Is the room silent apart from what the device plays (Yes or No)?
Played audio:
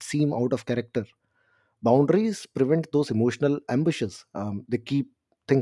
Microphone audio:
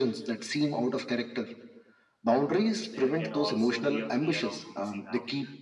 No